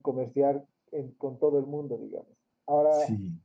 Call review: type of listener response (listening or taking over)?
listening